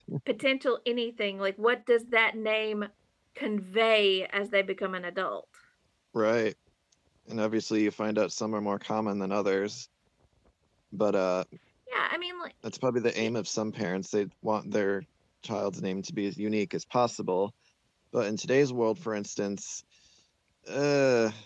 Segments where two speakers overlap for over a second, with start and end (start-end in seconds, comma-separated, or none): none